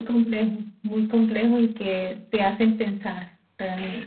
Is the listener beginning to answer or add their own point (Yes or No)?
Yes